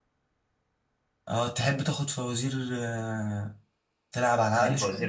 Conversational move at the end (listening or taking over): taking over